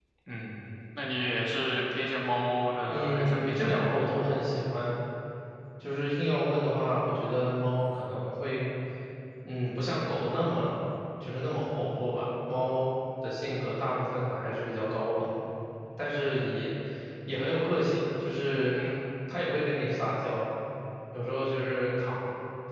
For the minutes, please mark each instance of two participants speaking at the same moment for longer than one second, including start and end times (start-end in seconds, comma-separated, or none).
2.9-4.1